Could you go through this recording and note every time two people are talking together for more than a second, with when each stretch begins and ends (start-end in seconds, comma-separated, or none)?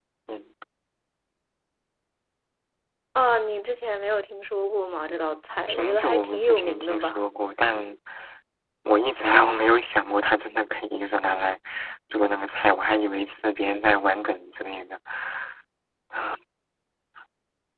5.7-7.2